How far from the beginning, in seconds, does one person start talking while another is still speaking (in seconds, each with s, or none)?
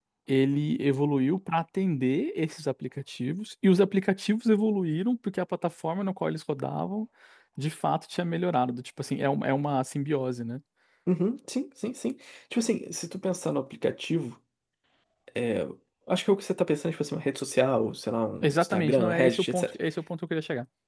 18.4 s